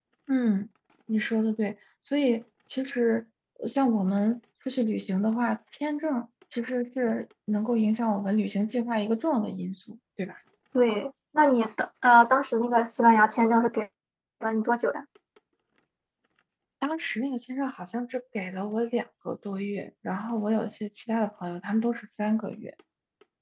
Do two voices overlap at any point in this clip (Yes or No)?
No